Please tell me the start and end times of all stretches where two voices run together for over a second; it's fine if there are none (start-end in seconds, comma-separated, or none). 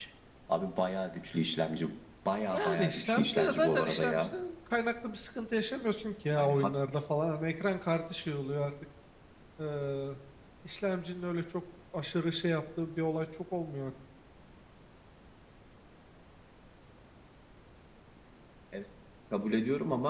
2.5-4.4